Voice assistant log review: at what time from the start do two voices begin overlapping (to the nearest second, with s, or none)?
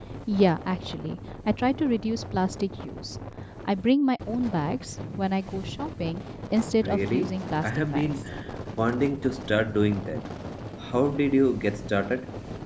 7 s